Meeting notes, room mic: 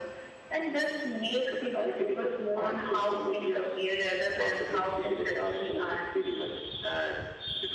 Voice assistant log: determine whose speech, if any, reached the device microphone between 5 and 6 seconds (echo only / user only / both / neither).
echo only